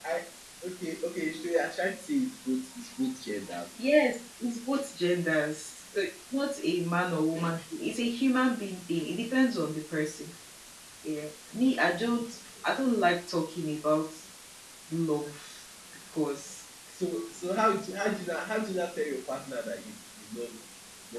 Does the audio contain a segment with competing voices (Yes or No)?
No